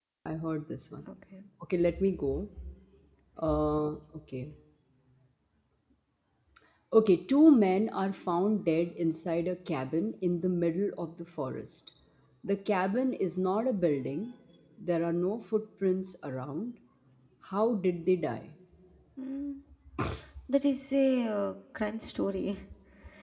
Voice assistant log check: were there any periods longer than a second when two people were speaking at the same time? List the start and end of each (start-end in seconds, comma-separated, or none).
none